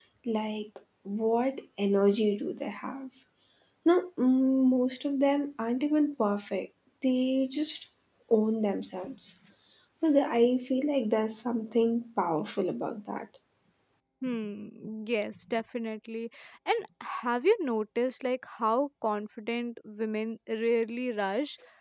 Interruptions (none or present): none